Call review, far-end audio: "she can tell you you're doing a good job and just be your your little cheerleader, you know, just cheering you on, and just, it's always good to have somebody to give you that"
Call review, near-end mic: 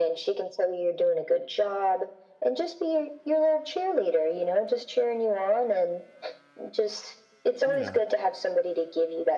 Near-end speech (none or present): present